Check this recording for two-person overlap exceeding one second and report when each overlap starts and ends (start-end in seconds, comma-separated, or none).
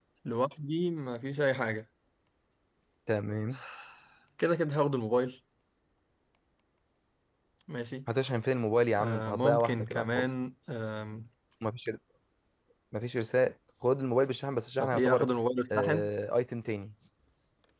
9.0-10.3